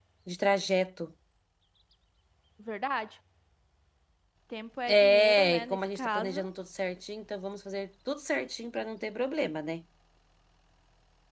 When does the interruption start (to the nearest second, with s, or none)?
5 s